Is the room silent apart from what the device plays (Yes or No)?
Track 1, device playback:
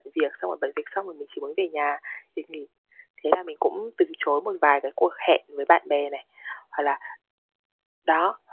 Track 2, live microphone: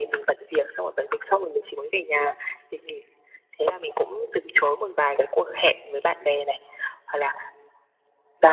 Yes